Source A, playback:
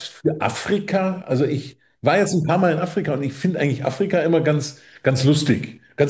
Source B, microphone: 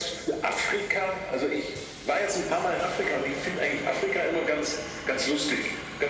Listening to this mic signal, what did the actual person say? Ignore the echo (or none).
none